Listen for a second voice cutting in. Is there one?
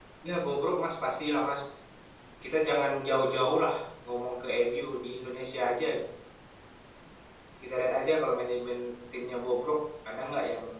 No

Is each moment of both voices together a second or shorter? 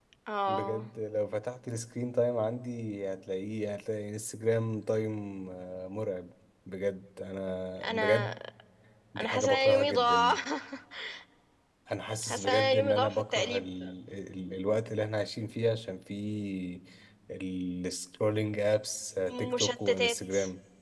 No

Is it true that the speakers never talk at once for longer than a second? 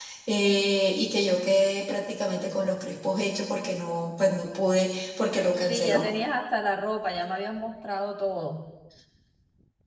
Yes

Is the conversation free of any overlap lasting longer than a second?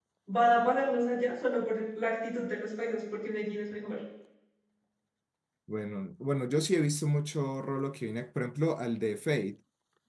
Yes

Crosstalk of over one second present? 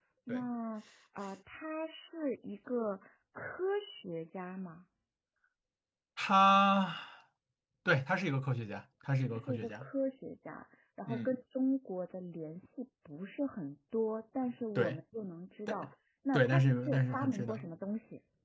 Yes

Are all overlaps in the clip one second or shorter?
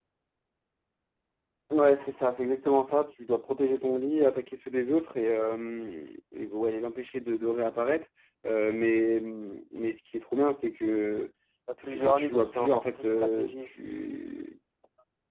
No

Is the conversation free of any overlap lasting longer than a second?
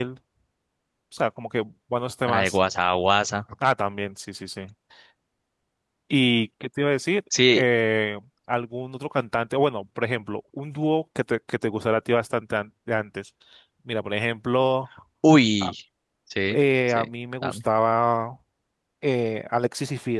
Yes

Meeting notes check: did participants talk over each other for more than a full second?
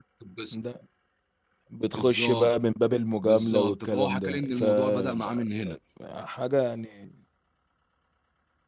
Yes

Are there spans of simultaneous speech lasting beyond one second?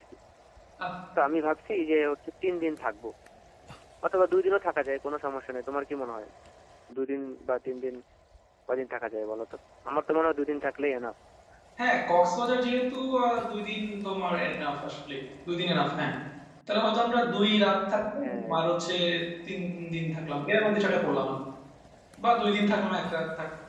No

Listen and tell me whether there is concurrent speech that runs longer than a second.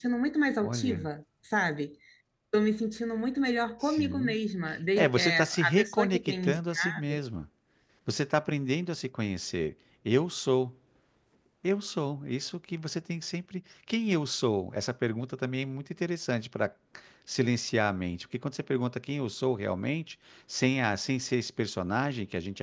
Yes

